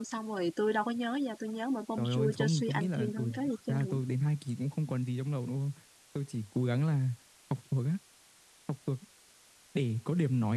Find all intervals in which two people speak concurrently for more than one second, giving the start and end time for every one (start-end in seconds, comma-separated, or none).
2.0-3.3